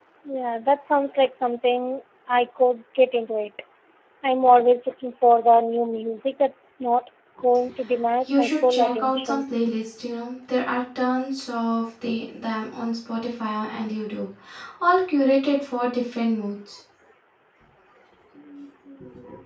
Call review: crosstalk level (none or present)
present